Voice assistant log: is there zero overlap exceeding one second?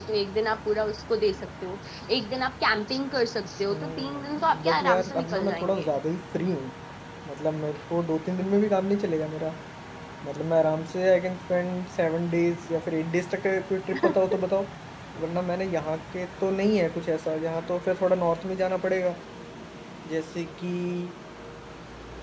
No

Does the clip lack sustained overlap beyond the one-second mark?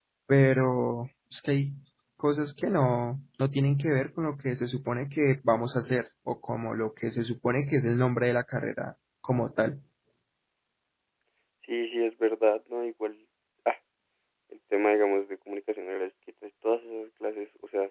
Yes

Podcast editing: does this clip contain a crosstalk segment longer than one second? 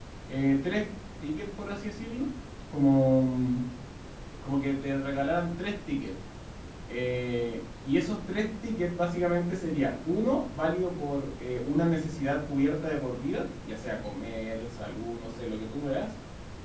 No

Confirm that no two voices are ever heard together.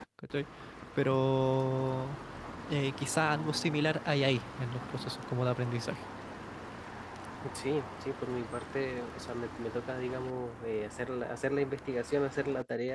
Yes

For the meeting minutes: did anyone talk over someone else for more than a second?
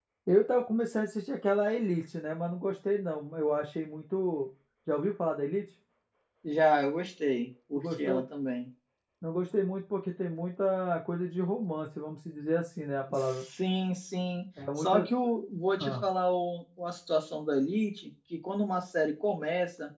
No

